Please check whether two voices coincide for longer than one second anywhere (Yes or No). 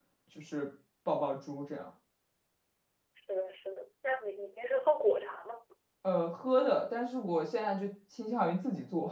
No